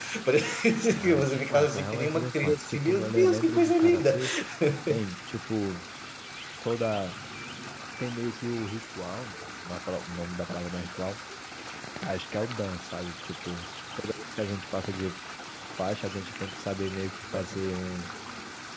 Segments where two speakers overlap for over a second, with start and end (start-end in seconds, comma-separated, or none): 0.9-4.2